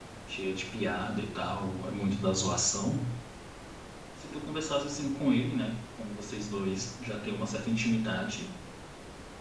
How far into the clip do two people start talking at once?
none

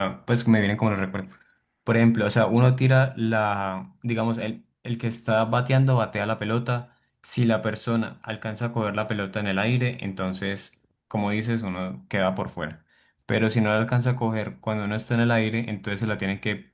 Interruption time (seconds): none

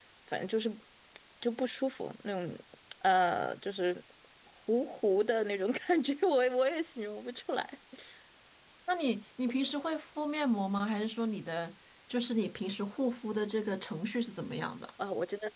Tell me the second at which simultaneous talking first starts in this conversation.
none

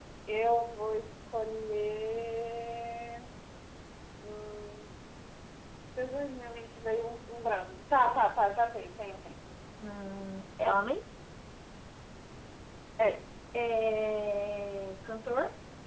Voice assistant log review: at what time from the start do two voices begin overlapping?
none

